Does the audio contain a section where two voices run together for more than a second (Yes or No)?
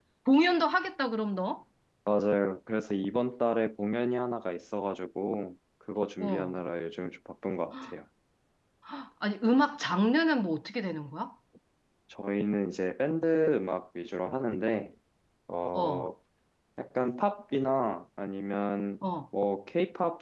No